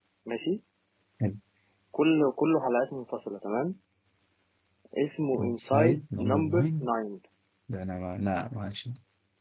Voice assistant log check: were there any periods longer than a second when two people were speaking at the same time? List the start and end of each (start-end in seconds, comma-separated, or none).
5.4-6.7